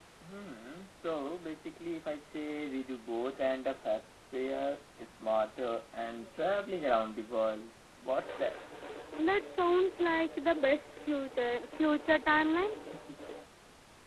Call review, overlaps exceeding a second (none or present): none